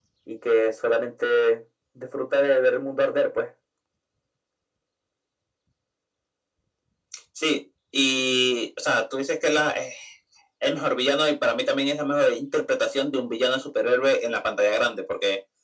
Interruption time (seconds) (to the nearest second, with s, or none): none